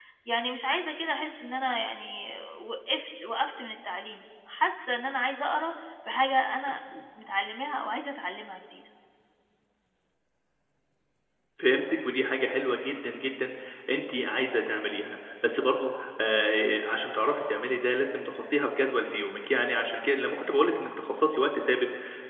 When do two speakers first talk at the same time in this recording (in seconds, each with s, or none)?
none